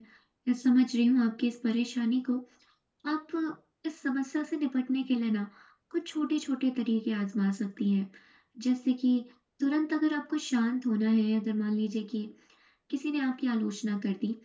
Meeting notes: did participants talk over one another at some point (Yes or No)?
No